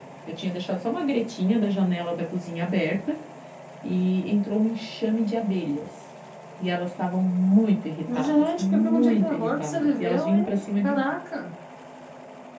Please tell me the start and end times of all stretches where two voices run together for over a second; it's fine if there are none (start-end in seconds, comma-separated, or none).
8.1-11.0